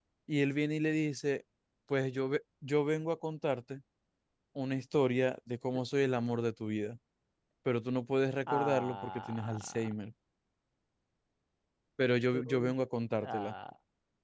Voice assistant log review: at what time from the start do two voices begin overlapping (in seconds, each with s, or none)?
8.5 s